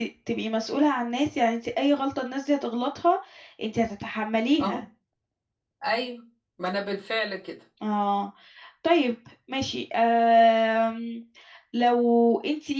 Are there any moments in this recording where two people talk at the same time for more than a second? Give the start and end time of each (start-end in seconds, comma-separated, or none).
none